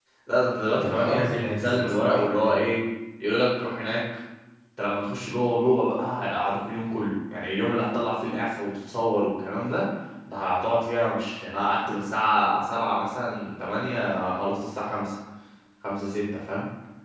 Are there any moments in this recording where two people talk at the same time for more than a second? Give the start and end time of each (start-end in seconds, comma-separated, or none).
0.8-2.4